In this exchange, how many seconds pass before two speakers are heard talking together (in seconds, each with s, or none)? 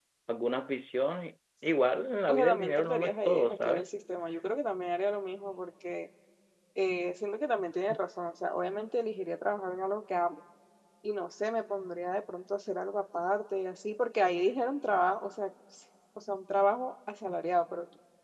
2.3 s